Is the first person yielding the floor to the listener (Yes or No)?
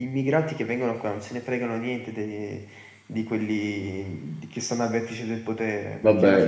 Yes